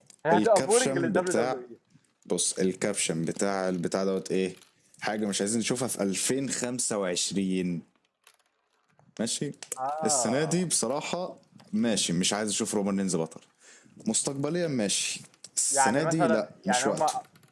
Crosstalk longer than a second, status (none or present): present